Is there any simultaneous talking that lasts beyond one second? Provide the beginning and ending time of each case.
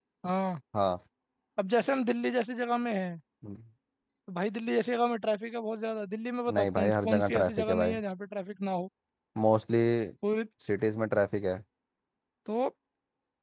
6.5-8.0

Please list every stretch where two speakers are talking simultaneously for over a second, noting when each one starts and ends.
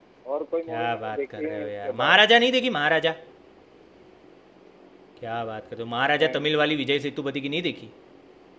0.7-2.2

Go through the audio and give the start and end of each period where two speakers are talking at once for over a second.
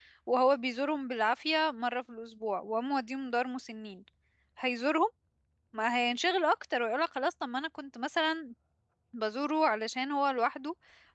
none

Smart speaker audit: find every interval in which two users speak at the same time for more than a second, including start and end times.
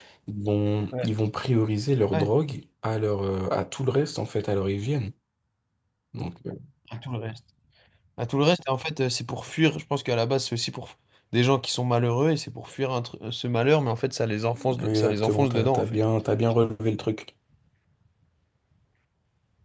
14.8-16.0

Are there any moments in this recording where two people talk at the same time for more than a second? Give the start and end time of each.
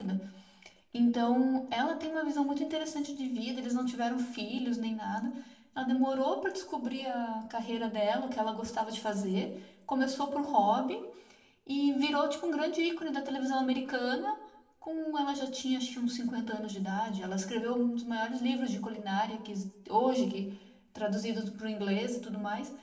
none

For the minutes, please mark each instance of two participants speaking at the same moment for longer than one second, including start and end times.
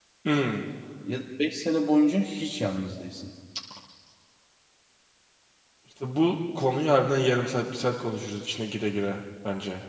none

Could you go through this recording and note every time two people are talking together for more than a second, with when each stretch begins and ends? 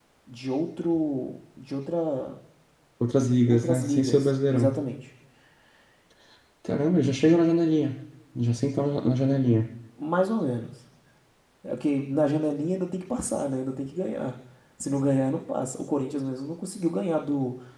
3.5-4.7

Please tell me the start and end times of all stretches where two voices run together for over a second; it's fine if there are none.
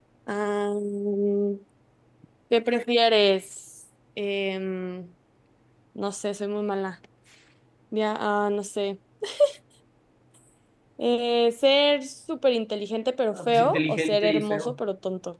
13.3-14.8

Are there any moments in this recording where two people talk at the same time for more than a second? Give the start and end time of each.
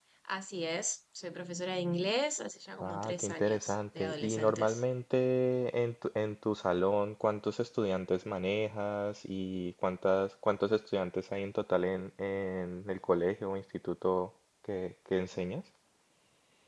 2.8-4.8

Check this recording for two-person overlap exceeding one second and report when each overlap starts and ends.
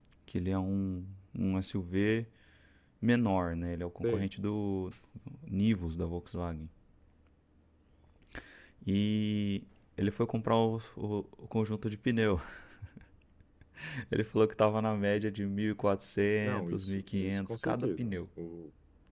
16.4-18.2

